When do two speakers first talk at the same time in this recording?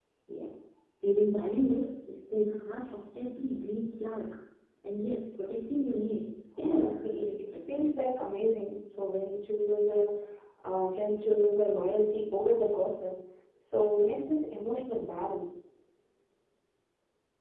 6.6 s

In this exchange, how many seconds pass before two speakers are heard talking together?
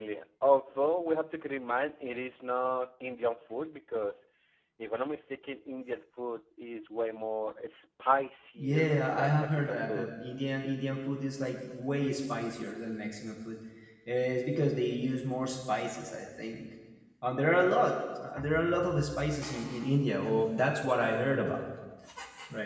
8.6 s

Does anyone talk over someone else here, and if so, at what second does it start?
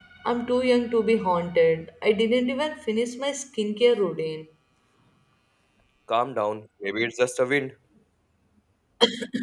none

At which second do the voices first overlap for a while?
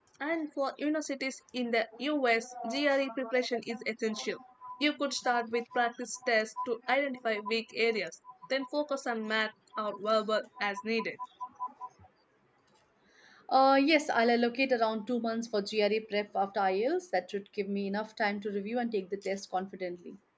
none

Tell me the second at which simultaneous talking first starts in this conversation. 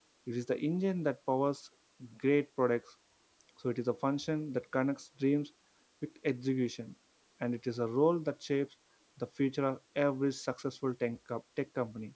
none

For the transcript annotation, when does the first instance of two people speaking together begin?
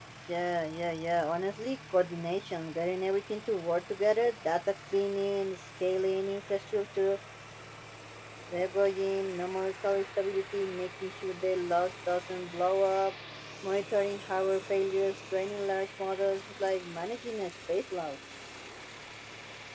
none

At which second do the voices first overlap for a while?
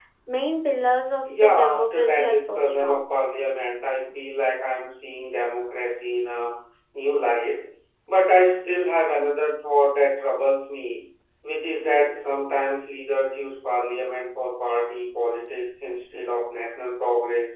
1.3 s

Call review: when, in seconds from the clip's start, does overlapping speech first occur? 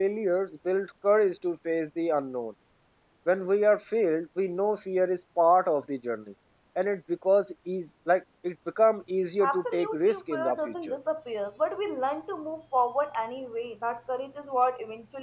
9.4 s

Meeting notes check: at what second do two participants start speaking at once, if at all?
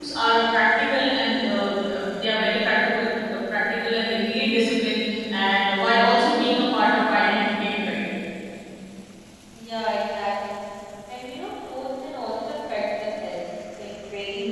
none

